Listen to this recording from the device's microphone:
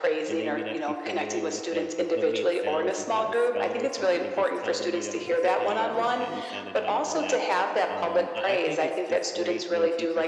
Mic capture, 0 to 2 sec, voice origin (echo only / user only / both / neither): both